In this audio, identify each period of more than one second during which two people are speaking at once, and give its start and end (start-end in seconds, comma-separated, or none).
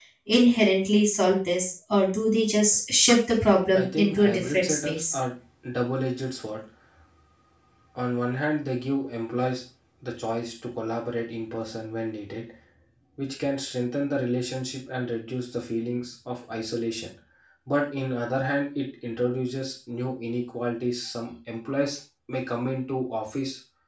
3.8-5.1